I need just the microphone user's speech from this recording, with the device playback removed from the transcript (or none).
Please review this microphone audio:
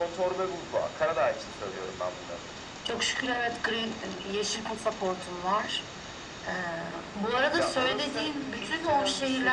none